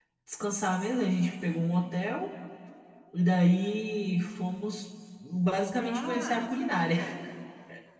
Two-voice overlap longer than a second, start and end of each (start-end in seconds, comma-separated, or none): 5.8-7.0